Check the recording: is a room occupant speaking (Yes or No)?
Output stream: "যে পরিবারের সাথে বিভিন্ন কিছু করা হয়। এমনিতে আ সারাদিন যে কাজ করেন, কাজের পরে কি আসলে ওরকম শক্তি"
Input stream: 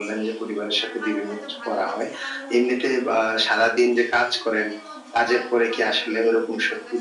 Yes